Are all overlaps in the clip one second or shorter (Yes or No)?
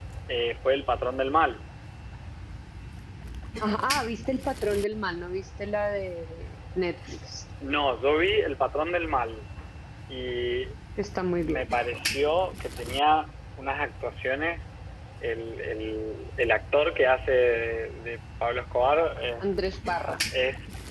Yes